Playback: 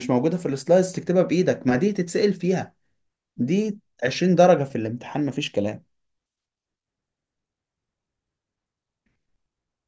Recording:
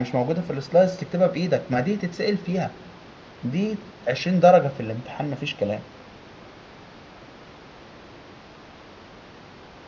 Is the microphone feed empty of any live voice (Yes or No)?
Yes